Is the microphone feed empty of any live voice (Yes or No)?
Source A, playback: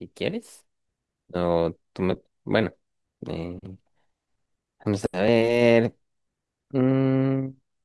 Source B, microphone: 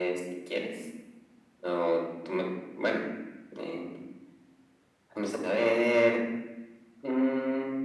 Yes